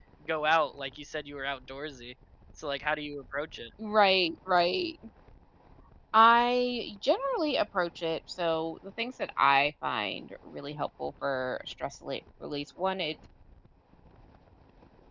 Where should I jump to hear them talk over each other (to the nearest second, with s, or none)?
none